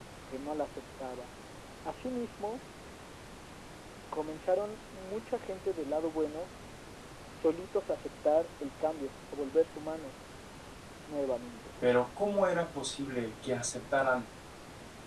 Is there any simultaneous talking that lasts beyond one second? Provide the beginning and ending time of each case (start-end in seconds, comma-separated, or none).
none